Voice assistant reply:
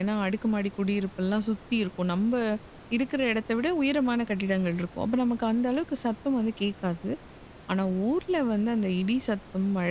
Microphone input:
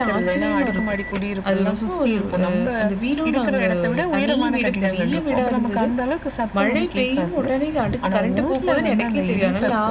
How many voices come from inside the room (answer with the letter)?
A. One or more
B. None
A